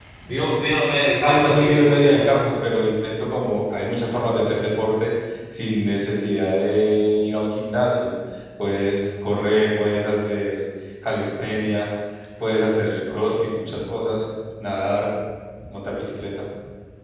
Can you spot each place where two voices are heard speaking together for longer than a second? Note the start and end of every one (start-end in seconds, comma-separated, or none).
1.2-2.5